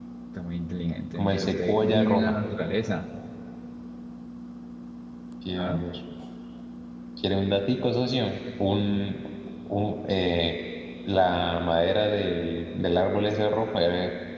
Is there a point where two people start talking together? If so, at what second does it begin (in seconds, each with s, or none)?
1.2 s